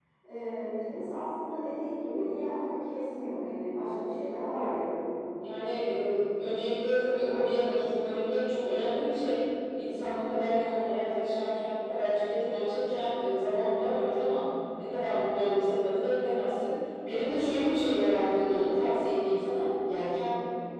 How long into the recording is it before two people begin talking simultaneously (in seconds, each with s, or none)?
none